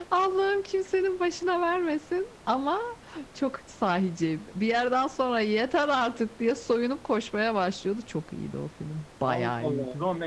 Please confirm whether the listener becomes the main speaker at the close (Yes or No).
Yes